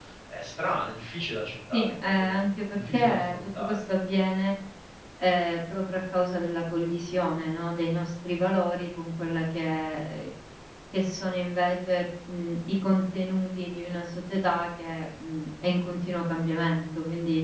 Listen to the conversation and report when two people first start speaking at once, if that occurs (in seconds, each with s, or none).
1.7 s